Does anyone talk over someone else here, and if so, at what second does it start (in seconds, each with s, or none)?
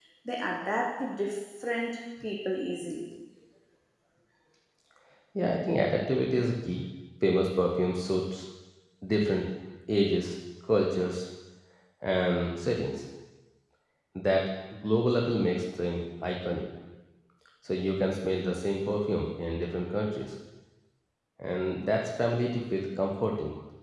none